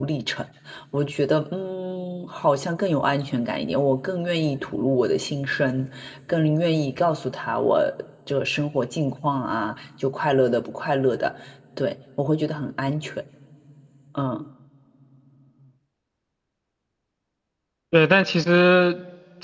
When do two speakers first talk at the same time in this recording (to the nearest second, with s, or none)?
none